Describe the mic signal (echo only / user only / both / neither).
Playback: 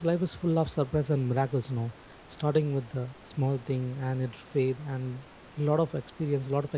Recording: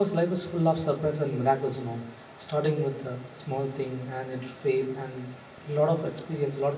echo only